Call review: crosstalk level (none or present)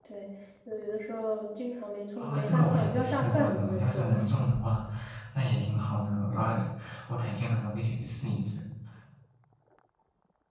present